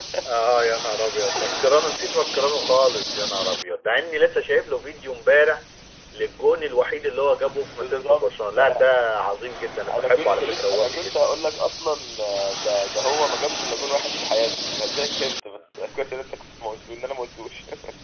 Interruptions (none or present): present